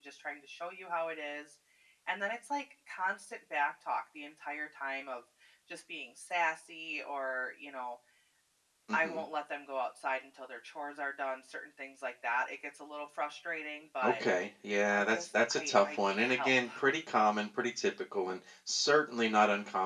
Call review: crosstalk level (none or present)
present